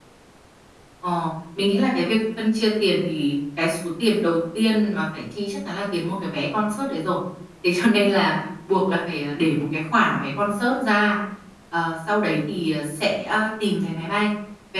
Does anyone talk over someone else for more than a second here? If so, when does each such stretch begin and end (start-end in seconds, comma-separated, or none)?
none